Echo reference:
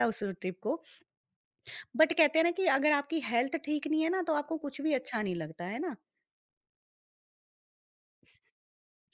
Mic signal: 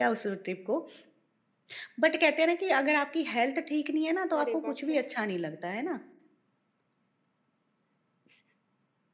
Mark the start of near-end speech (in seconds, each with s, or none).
4.4 s